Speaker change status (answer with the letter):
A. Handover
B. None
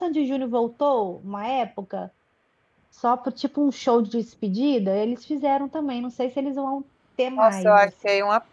A